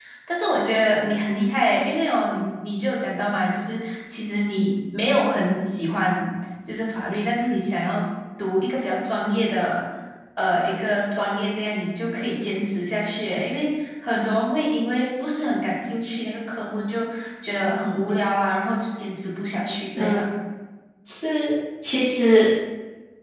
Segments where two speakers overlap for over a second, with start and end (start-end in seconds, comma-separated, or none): none